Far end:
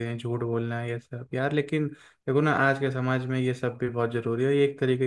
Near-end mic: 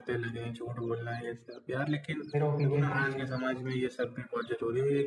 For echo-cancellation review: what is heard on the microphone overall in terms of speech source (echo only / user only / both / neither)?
both